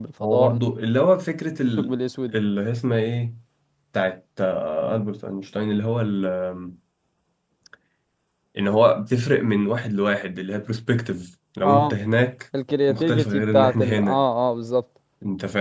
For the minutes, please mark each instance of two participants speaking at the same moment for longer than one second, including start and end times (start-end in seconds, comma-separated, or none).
12.9-14.2